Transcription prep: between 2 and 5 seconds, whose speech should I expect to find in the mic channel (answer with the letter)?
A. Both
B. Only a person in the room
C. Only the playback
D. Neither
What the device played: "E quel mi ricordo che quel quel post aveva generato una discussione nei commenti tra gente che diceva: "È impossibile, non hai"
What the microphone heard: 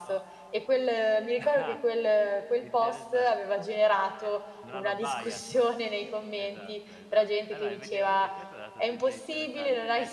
A